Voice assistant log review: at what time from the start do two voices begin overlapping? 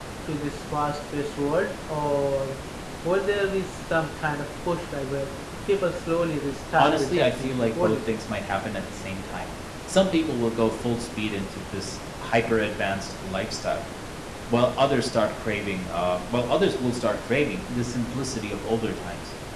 6.8 s

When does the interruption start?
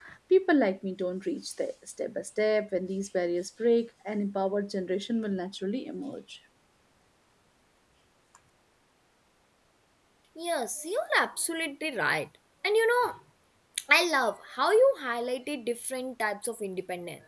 none

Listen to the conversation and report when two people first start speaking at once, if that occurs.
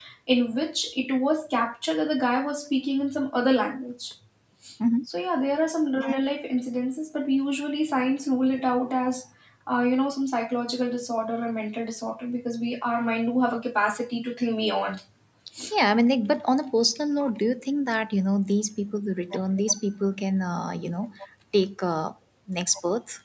none

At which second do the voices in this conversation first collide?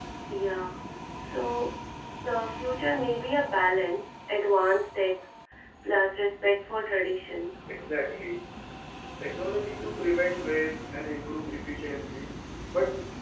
none

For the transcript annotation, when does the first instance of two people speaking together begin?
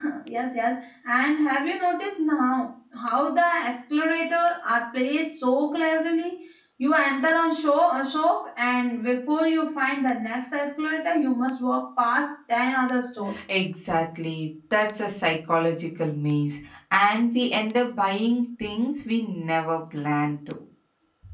none

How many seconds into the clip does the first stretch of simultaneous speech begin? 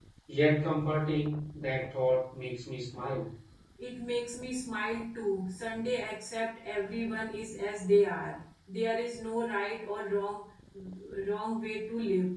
none

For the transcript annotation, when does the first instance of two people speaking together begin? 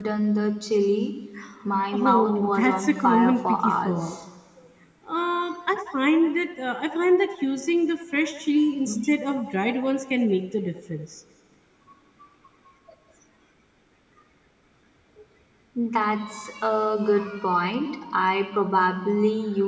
1.9 s

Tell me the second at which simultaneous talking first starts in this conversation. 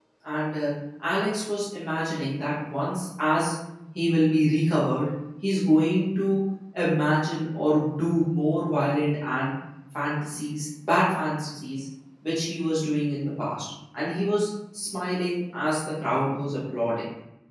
none

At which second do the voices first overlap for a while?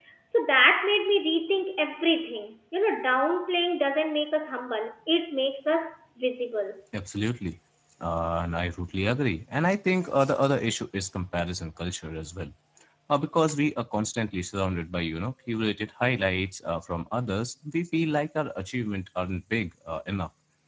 none

